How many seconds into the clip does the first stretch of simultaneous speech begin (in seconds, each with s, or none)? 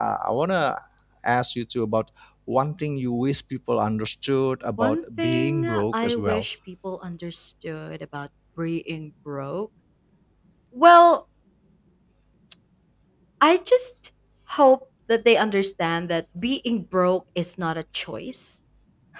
4.8 s